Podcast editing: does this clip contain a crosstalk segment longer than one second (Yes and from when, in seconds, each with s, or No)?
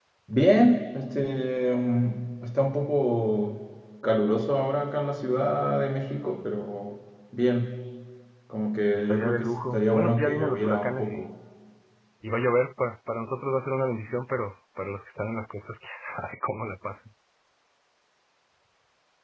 Yes, from 8.9 s